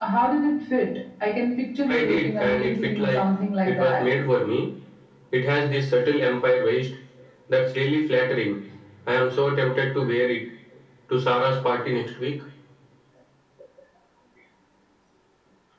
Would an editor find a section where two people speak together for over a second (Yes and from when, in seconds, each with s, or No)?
Yes, from 1.9 s